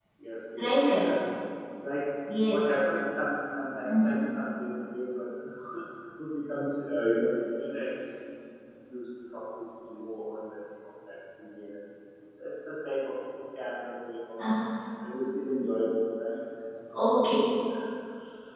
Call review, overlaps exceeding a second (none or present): none